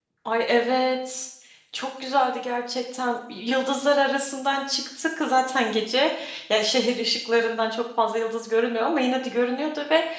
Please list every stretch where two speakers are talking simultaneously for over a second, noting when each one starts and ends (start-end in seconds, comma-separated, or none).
none